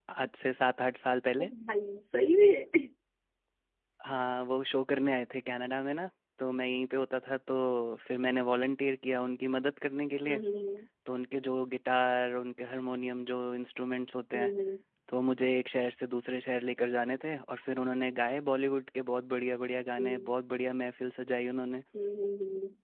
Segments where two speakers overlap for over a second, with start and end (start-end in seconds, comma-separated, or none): none